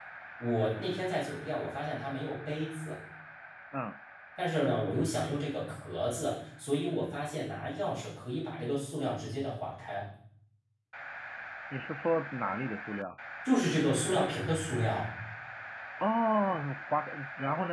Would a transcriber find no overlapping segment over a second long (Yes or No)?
Yes